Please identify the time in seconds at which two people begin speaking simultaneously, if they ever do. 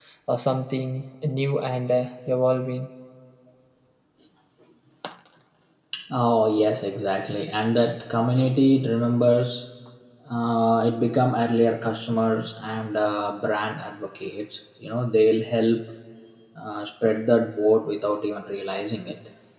none

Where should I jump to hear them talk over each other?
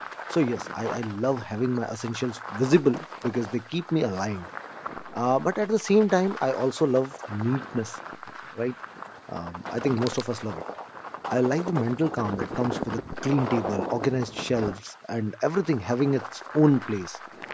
none

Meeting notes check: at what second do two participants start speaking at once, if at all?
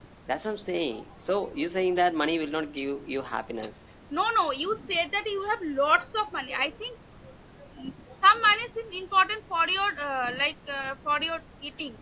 none

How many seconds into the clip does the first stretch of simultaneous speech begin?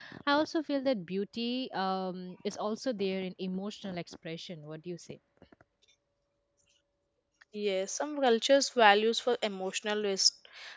none

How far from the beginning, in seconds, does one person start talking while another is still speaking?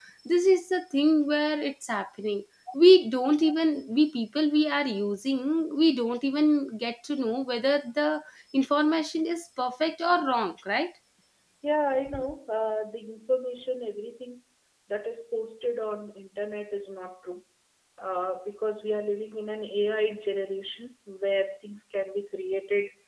none

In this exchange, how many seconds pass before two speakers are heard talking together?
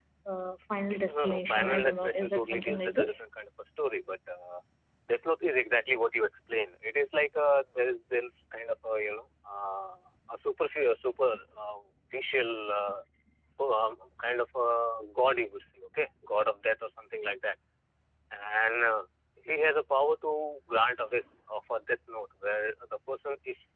1 s

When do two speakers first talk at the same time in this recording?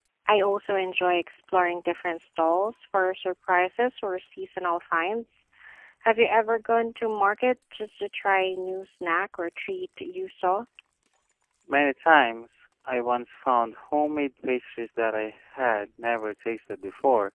none

